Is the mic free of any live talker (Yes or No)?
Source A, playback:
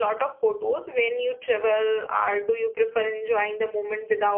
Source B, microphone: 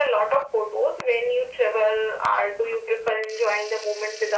Yes